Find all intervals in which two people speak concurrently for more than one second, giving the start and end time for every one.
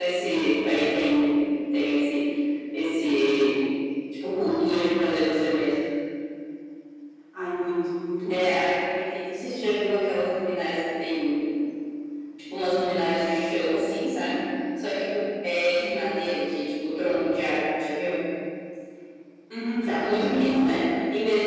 none

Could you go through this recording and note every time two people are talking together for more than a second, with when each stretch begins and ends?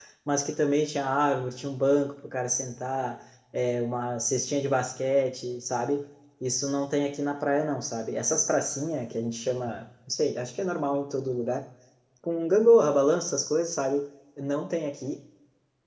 none

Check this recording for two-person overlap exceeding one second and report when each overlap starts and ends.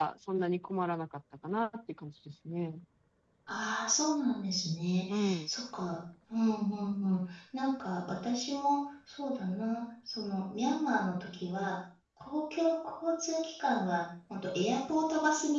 none

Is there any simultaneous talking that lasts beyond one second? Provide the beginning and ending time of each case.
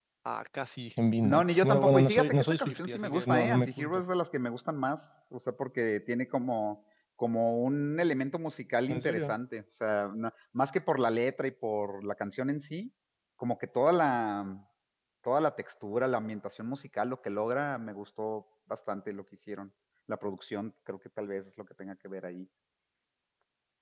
1.2-4.0

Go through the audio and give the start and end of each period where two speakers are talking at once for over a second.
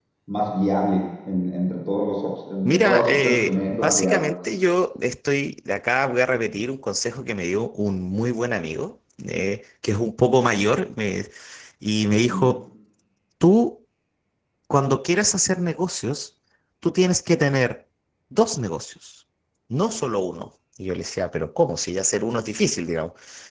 2.6-4.3

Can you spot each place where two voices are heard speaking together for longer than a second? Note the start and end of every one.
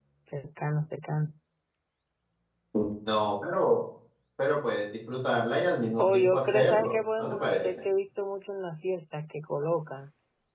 6.0-7.7

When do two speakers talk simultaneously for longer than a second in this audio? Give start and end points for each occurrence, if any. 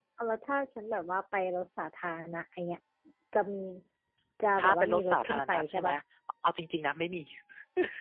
4.6-5.9

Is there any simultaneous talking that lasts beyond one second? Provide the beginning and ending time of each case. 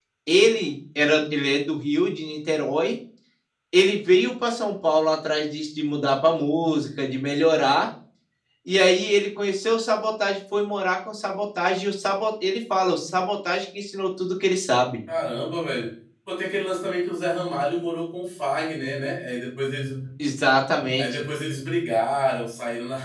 none

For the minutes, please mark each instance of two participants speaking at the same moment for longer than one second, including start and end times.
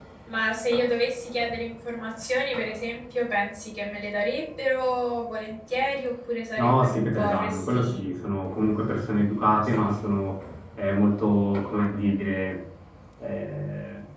6.6-8.0

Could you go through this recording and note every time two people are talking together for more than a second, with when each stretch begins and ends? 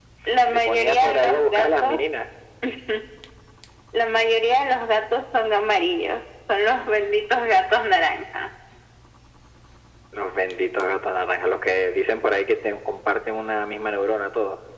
0.5-2.0

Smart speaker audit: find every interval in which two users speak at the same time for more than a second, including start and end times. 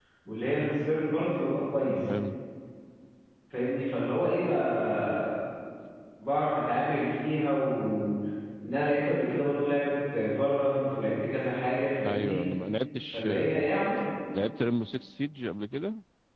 none

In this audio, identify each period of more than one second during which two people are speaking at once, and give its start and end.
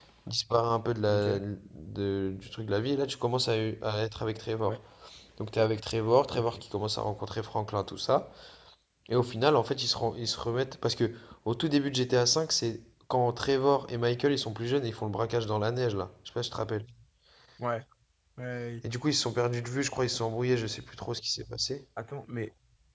none

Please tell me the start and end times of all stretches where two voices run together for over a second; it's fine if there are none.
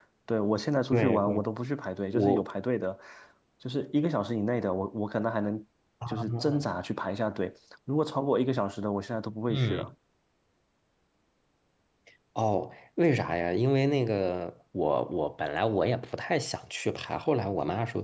none

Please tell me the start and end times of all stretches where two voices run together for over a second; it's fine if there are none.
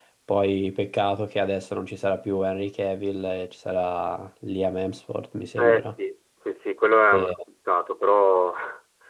none

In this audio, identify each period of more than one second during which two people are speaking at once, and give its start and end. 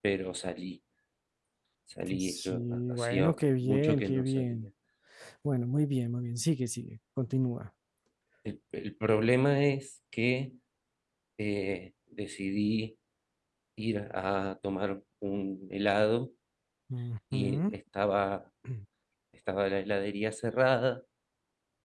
2.2-4.6

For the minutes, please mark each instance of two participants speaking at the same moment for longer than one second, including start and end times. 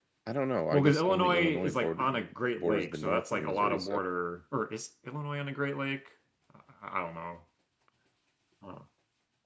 0.7-2.0, 2.6-4.0

